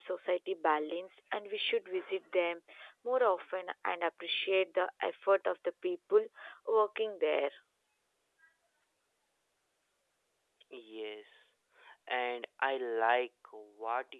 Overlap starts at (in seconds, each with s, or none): none